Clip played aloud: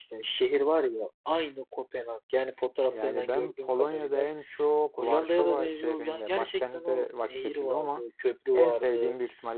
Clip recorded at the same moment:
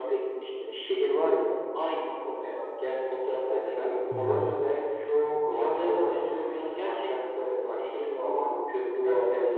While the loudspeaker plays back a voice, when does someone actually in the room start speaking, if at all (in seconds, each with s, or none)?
4.1 s